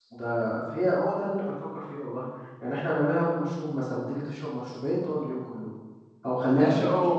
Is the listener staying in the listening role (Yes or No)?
No